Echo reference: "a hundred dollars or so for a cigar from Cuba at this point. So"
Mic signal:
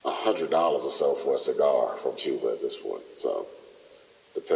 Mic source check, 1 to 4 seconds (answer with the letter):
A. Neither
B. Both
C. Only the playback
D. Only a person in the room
C